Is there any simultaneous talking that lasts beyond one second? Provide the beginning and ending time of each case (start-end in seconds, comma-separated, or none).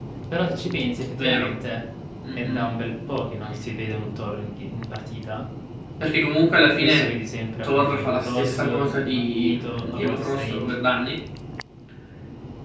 7.6-10.7